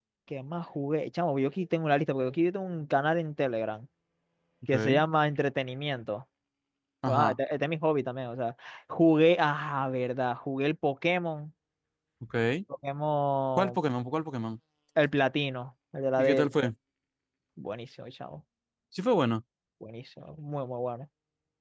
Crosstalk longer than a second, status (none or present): none